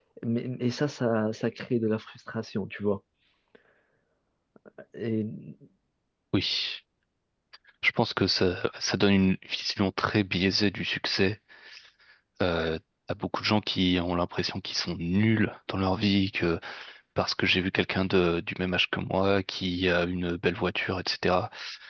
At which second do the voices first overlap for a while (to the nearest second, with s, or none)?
none